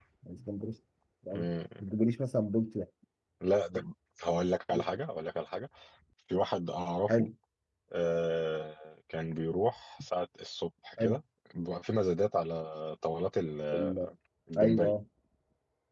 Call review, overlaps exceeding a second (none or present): none